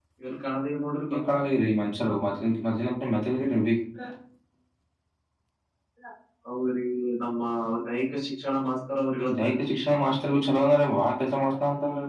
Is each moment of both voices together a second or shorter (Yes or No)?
Yes